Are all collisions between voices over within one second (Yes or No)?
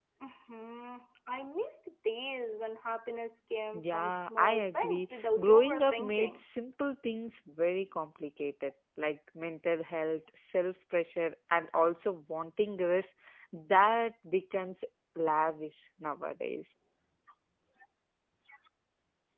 No